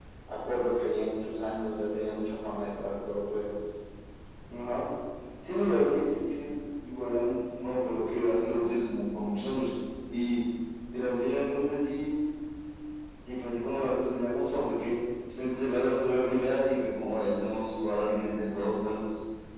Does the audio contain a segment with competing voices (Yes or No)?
No